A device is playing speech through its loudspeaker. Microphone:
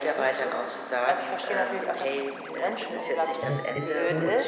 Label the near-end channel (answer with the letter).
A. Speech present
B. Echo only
A